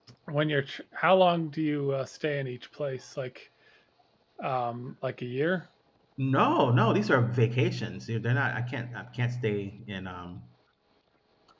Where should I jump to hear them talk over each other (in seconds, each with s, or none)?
none